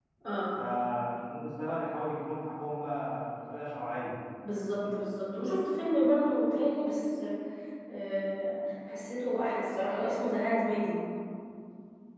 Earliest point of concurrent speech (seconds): none

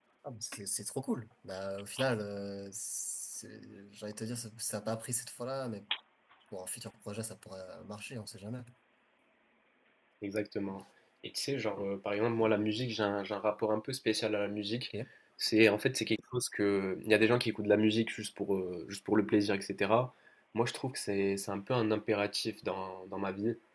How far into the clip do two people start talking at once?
none

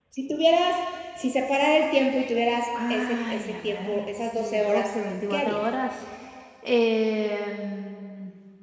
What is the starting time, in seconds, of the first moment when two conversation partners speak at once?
2.8 s

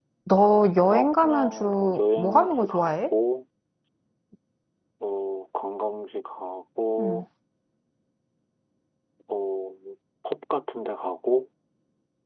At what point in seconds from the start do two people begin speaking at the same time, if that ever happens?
0.9 s

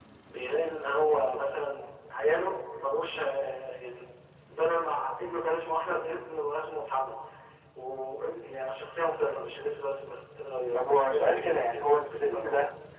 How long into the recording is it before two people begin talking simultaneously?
10.7 s

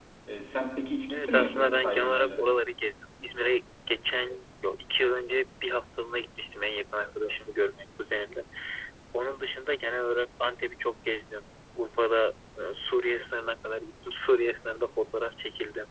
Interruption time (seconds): 1.1 s

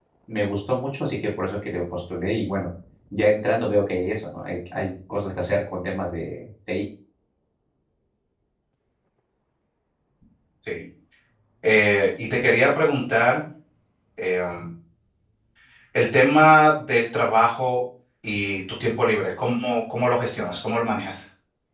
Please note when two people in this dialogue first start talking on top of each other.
none

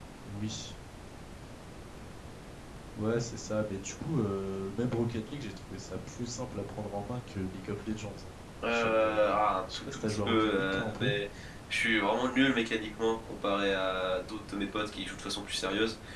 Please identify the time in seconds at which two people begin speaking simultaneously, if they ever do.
8.7 s

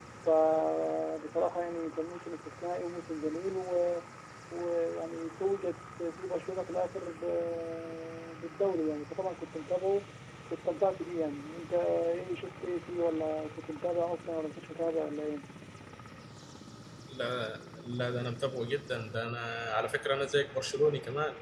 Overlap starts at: none

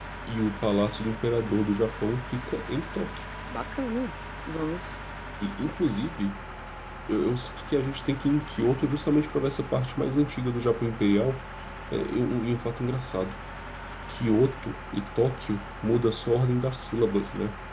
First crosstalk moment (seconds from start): none

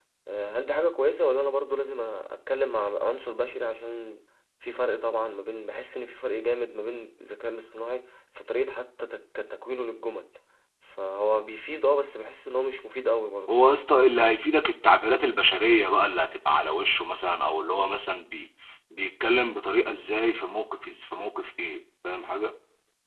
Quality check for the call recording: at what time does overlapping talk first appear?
none

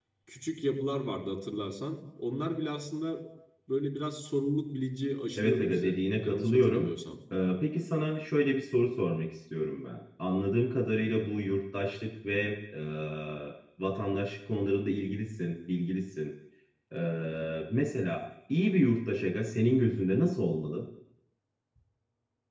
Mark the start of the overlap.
5.4 s

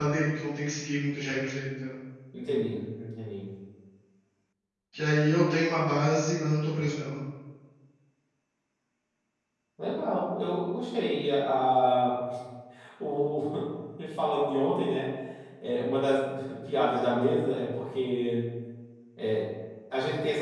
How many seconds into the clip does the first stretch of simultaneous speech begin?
none

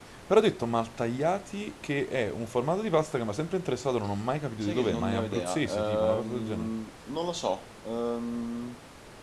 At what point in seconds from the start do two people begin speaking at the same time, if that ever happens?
4.6 s

